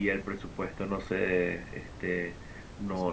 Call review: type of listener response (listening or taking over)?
listening